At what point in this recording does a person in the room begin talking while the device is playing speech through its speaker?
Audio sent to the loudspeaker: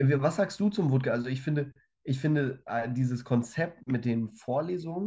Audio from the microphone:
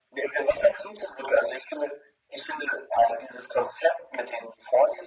none

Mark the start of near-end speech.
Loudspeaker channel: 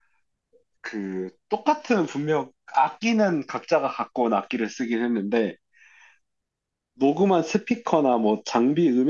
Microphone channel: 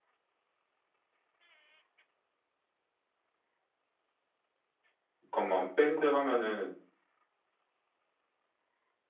5.2 s

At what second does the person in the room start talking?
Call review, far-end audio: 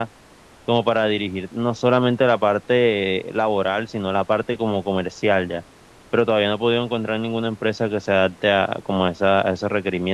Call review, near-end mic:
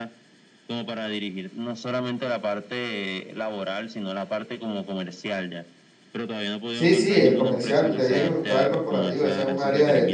6.7 s

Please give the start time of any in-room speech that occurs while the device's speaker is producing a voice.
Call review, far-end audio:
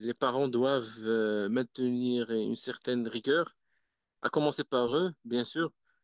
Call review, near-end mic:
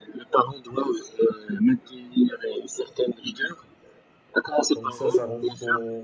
4.7 s

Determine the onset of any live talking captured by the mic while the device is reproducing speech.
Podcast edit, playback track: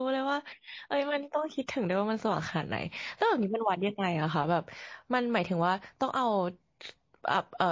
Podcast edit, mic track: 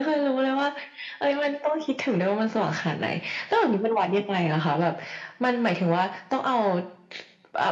none

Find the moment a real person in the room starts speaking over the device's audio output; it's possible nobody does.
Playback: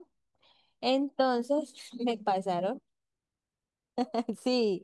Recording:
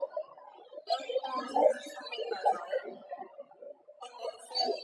none

